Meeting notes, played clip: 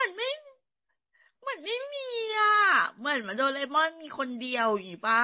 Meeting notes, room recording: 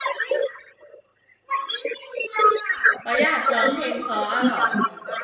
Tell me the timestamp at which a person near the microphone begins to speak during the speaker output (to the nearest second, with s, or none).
3 s